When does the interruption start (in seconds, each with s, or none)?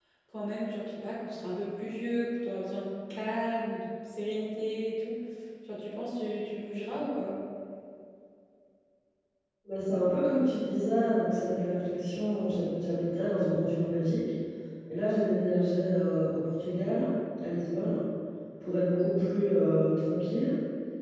none